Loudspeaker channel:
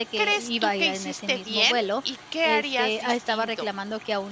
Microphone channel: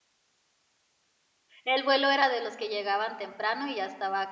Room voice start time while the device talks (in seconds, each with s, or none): 1.6 s